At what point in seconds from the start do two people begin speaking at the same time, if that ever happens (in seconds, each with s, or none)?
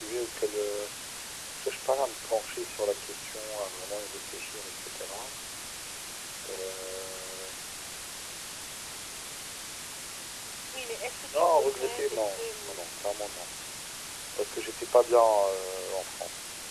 11.3 s